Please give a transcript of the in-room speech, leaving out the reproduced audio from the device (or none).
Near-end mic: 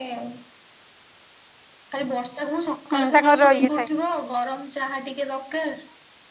ହୁଁ ତାଙ୍କର ଇଏ